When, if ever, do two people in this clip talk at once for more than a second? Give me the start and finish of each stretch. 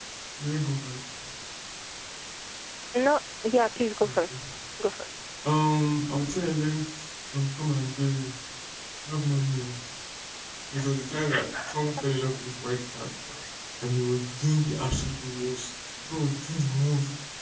none

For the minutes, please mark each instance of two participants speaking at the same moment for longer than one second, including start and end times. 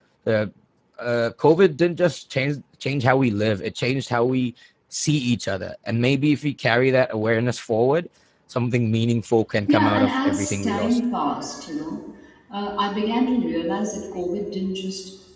9.7-11.0

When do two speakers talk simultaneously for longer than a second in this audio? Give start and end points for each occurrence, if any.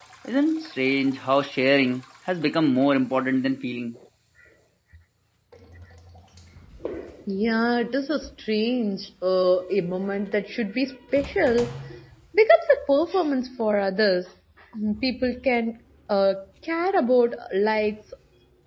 none

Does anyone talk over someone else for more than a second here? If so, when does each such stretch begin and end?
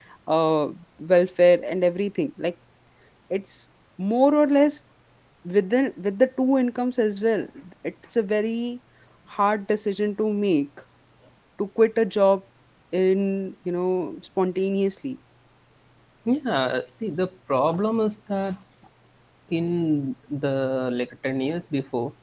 none

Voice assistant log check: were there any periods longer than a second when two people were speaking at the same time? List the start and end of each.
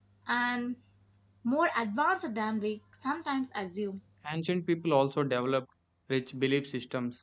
none

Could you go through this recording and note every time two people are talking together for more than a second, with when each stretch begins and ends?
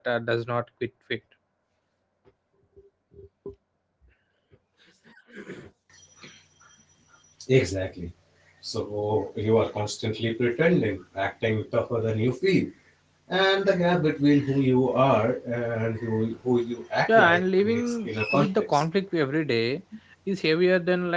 17.1-18.8

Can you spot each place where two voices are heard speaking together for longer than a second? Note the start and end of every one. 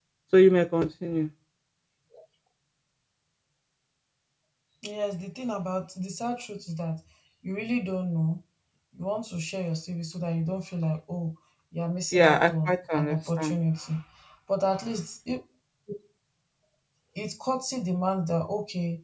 12.1-13.6

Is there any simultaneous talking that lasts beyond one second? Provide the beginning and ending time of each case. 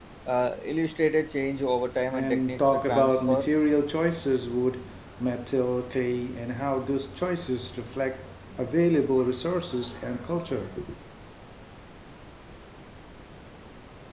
2.1-3.5

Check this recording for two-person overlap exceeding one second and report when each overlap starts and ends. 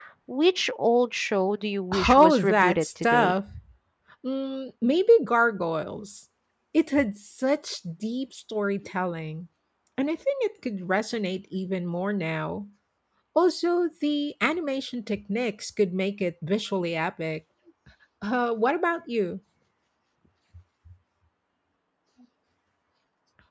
2.1-3.3

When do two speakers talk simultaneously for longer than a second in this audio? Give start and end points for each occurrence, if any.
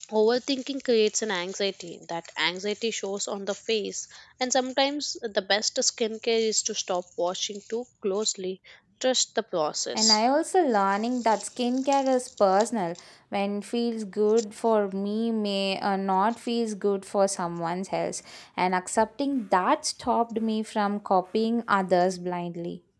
none

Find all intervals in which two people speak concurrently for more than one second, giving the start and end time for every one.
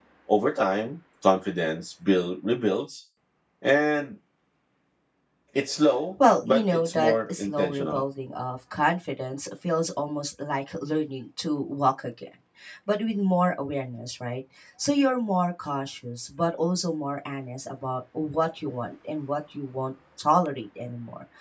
6.4-8.0

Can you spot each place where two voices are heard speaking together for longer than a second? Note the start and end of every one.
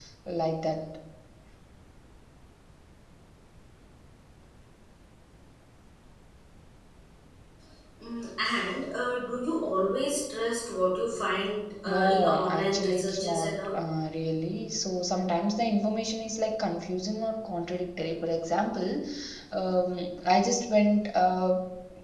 11.8-13.8

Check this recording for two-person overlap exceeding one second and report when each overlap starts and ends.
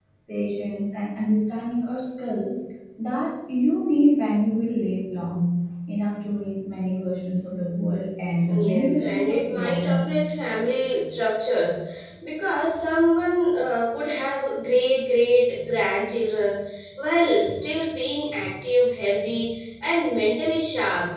8.6-10.1

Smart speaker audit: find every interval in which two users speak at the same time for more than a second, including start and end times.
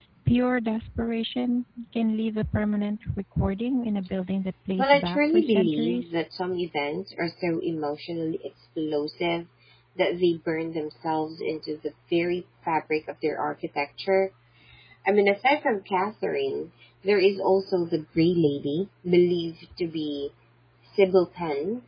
4.8-6.1

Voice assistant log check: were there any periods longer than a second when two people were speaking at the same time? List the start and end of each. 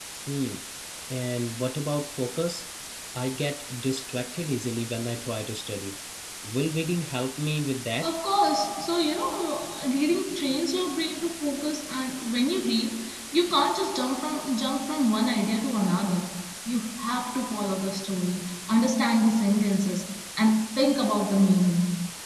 none

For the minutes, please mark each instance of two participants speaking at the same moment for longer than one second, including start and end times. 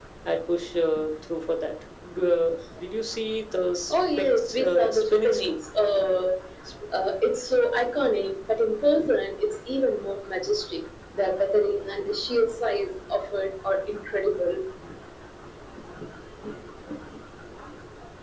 3.9-5.5

